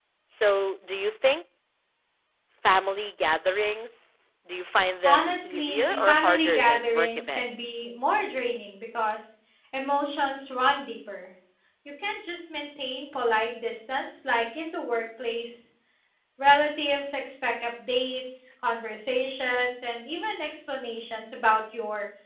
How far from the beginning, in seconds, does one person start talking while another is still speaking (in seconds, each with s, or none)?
5.0 s